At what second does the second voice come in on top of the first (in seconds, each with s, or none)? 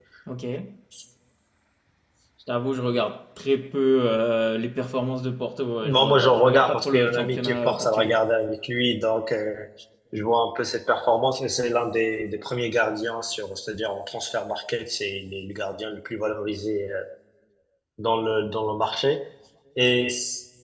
5.8 s